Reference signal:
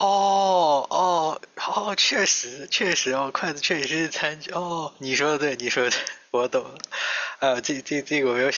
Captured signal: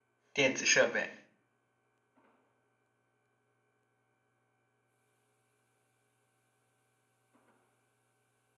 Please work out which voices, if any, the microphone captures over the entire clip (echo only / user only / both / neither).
user only